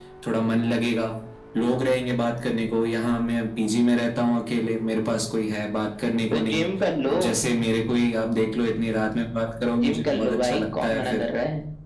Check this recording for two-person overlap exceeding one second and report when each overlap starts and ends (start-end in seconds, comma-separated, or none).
9.8-11.3